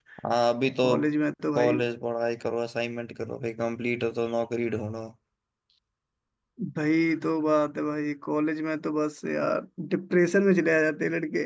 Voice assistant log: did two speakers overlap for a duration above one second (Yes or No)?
No